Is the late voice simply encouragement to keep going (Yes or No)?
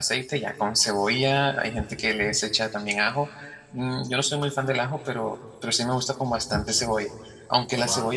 Yes